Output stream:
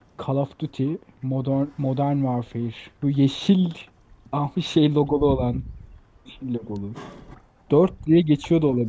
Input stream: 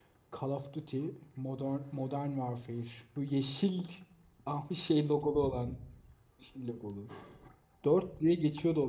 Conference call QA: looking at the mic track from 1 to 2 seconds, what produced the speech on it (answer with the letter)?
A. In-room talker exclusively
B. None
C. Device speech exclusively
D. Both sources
C